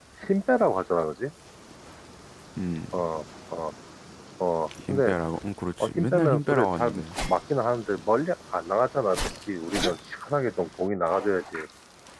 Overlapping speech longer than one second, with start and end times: 5.8-7.0

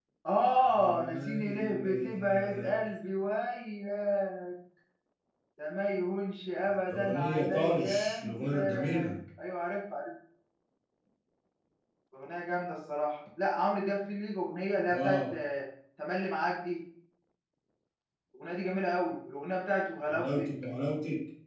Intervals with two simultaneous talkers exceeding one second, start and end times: 0.7-2.8, 6.9-9.1

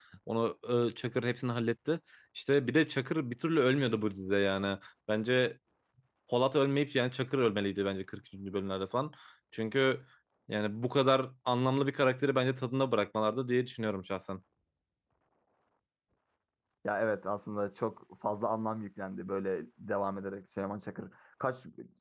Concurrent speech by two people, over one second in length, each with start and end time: none

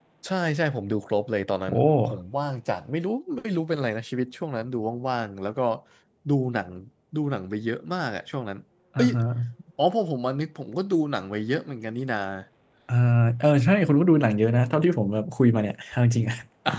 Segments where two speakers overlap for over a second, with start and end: none

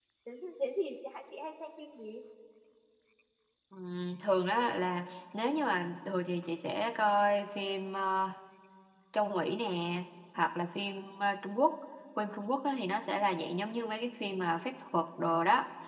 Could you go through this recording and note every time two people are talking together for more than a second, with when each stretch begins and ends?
none

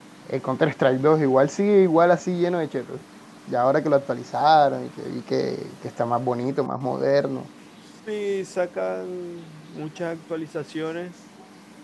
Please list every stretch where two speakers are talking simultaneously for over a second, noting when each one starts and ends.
none

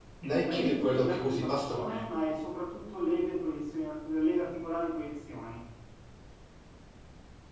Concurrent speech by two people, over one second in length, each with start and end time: 0.5-2.1

